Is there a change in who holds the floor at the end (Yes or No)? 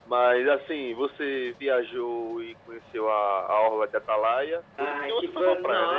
Yes